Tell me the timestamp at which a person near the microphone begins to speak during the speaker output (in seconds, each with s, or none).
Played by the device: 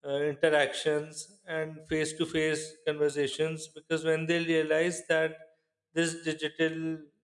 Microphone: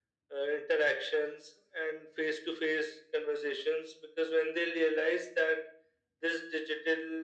none